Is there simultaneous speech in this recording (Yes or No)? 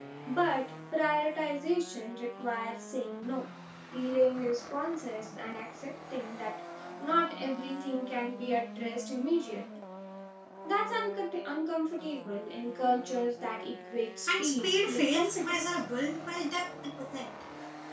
Yes